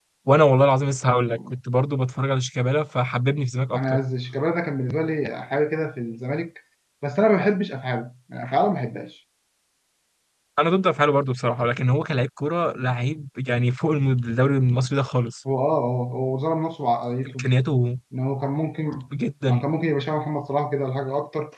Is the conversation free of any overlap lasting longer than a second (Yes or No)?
Yes